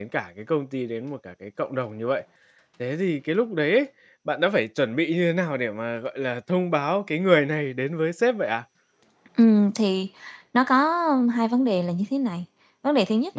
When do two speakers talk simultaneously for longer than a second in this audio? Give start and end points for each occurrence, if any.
none

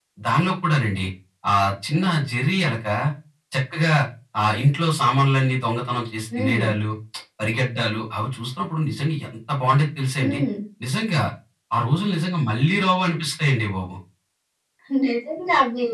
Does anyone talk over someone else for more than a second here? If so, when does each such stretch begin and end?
none

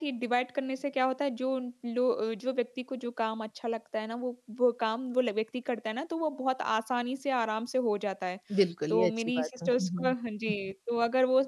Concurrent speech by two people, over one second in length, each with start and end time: 8.9-10.1

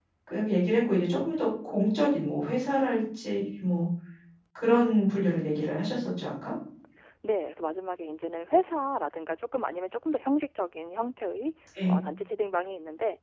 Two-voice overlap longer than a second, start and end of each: none

